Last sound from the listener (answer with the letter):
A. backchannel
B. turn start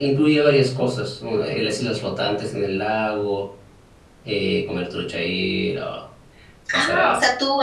B